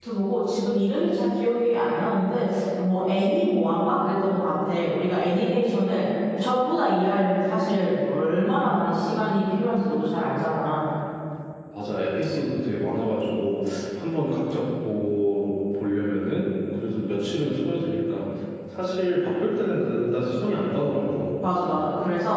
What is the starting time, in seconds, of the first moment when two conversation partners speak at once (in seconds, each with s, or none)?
none